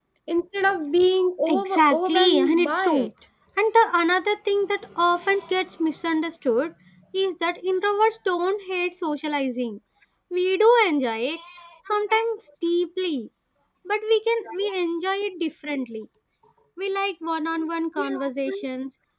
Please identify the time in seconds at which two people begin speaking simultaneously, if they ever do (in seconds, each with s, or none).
1.5 s